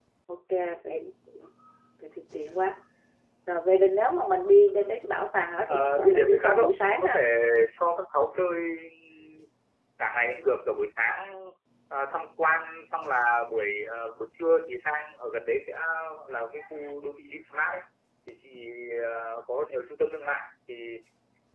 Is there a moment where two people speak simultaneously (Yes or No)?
Yes